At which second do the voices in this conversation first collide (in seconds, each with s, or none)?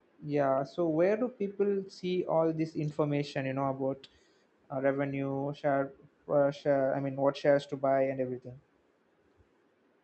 none